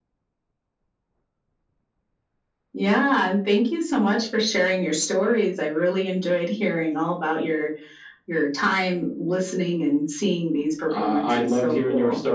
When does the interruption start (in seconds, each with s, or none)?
10.9 s